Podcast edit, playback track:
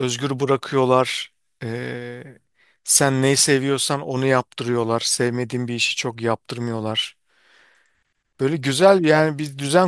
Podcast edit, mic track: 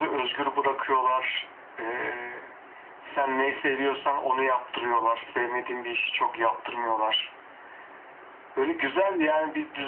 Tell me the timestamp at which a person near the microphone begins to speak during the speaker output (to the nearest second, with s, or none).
none